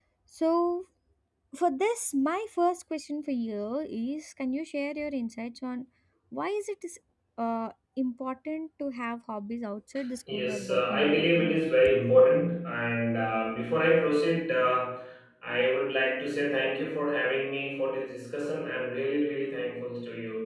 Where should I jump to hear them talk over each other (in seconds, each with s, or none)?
10.3 s